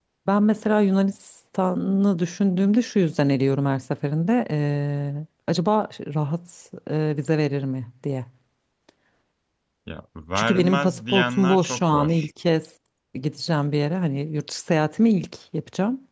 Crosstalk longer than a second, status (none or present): present